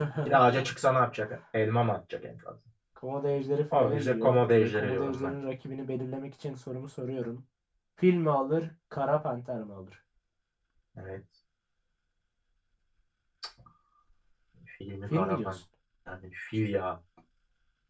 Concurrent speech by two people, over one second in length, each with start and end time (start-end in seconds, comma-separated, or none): 3.7-5.4